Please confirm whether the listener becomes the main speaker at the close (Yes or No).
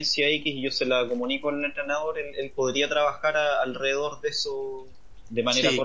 Yes